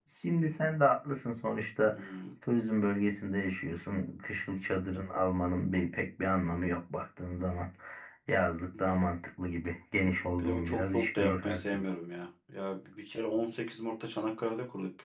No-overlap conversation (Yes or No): No